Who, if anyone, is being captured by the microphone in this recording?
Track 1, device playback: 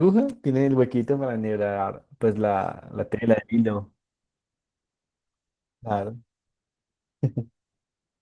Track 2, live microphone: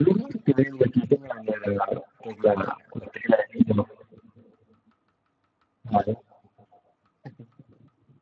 echo only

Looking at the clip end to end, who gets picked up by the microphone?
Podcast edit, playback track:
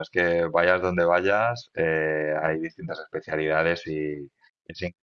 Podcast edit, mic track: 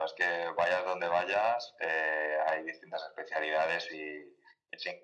echo only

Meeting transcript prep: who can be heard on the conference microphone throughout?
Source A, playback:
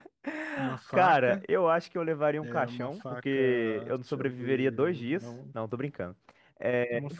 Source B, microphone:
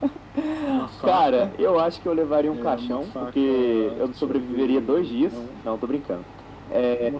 echo only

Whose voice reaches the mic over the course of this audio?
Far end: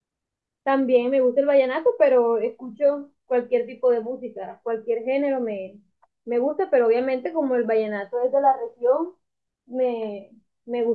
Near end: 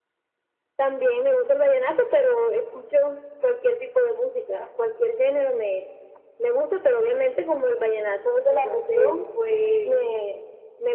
both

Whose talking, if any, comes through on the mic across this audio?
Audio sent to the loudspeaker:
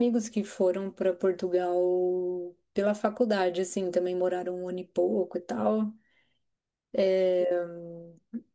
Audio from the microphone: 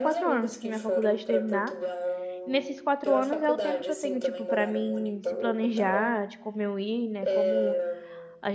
both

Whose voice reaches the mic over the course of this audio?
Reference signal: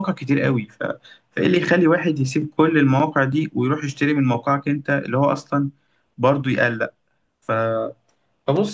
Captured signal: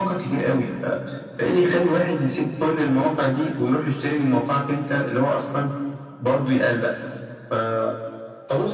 echo only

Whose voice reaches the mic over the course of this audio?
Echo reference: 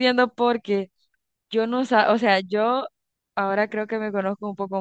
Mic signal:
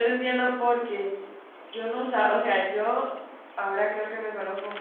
echo only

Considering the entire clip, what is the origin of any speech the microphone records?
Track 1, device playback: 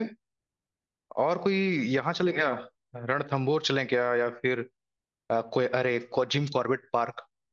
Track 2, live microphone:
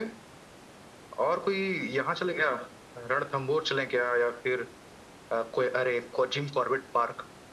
echo only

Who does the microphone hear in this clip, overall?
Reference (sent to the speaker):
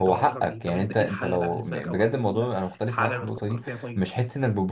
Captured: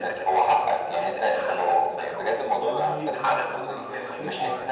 both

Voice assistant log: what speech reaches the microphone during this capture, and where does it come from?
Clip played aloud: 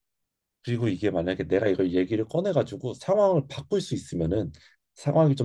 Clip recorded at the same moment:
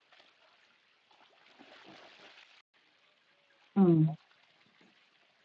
user only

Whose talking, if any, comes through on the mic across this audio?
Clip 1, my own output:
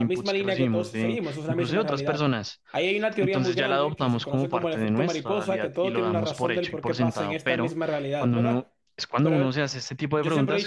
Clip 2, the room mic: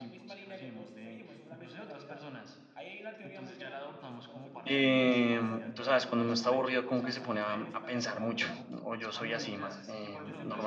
both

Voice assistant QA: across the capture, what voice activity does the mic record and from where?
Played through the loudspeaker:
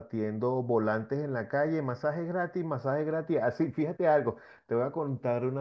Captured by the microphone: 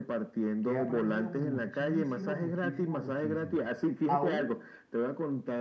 both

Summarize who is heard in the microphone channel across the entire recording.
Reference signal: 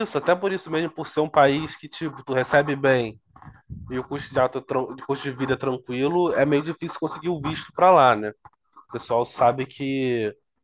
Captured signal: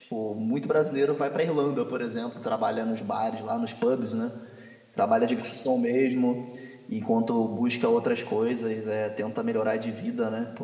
user only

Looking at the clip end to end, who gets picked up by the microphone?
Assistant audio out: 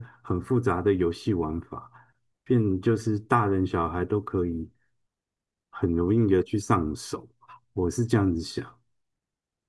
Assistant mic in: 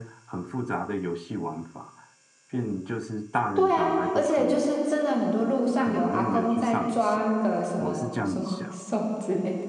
both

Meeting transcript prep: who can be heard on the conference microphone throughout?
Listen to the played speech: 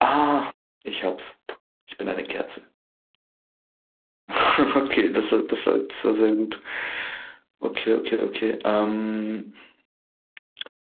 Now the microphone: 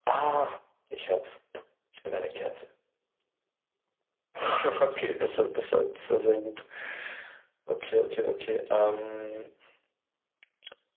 echo only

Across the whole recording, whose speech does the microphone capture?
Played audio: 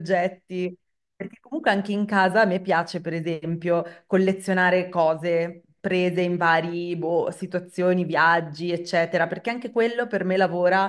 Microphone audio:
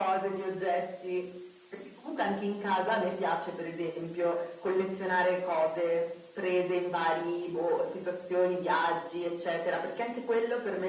echo only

